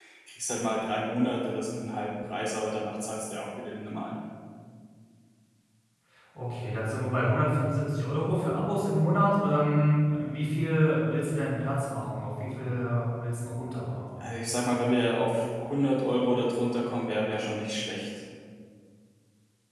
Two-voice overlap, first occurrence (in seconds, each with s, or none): none